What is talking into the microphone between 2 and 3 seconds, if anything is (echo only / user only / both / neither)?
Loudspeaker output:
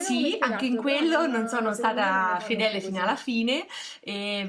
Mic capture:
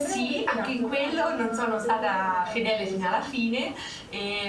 echo only